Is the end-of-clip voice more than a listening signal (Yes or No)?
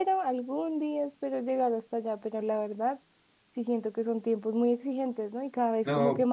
No